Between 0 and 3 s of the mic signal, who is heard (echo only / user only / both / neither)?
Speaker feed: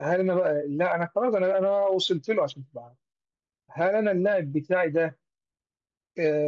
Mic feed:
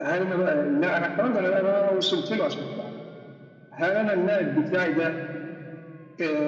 echo only